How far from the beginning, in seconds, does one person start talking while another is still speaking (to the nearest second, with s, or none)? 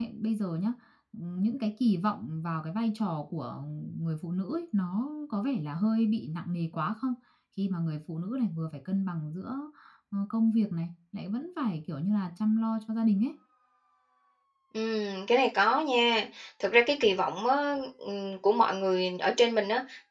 none